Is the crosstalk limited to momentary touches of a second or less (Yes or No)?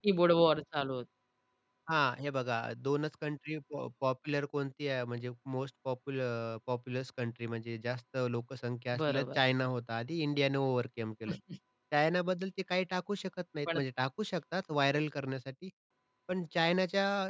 Yes